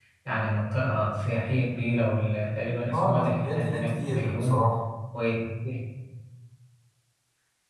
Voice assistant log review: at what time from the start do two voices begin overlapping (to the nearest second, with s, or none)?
3 s